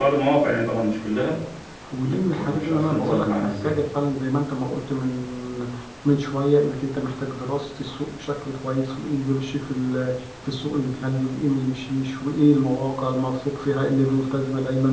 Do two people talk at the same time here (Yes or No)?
Yes